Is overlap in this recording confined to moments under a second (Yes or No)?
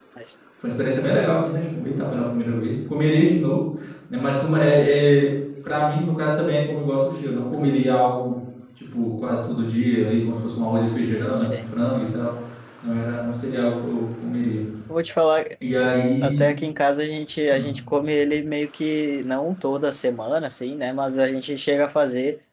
Yes